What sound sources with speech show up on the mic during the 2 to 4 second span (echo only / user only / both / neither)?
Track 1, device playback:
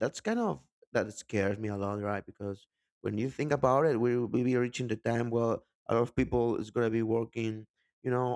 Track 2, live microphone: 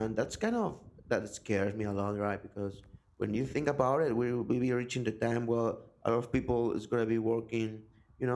echo only